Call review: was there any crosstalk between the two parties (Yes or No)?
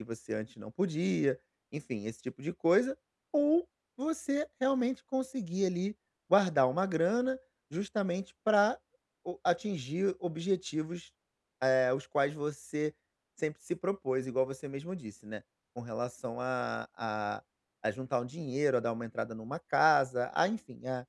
No